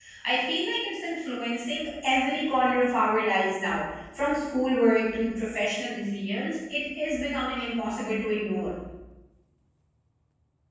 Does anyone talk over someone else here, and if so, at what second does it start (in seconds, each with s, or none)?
none